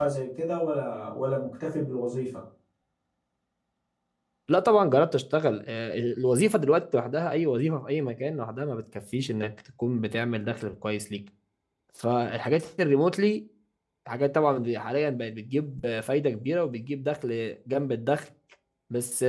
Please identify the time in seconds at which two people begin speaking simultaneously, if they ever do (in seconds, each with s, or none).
none